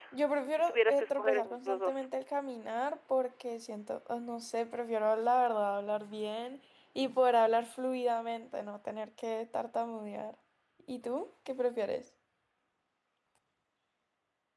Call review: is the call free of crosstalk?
No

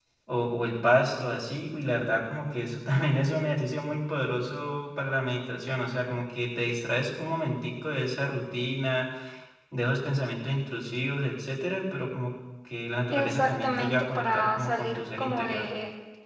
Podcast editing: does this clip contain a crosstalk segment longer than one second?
Yes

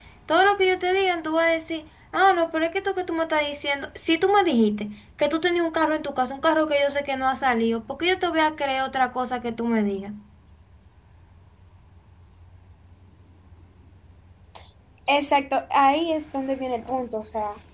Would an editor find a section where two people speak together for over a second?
No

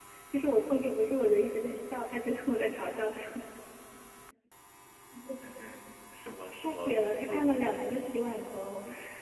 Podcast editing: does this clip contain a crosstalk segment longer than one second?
Yes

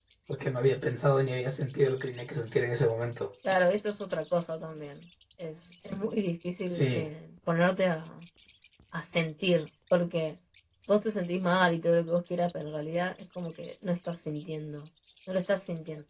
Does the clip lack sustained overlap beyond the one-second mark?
Yes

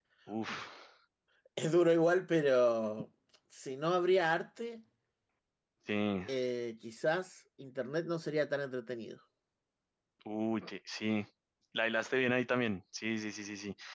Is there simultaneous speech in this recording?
No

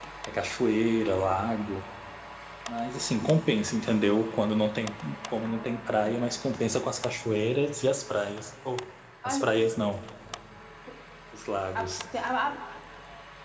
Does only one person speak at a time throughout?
No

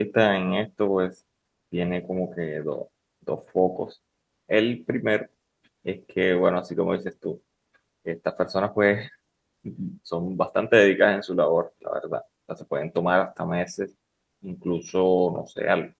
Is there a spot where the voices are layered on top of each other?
No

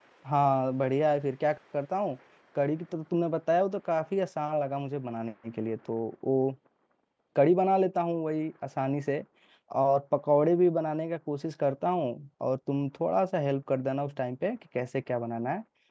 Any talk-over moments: No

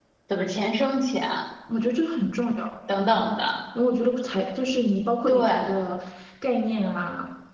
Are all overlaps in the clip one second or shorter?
Yes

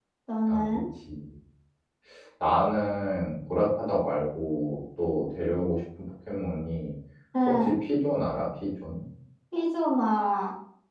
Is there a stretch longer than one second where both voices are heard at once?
No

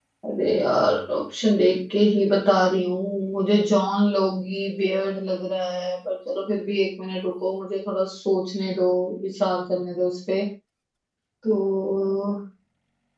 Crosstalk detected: No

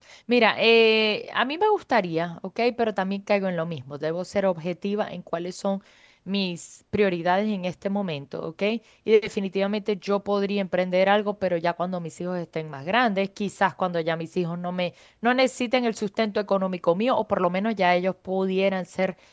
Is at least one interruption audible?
No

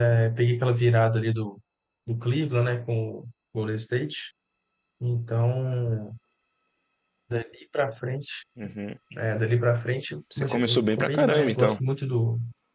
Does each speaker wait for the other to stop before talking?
No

